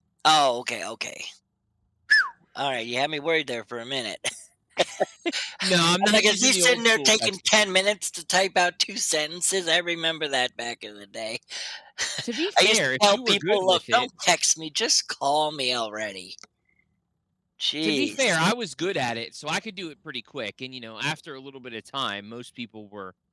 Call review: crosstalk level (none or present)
present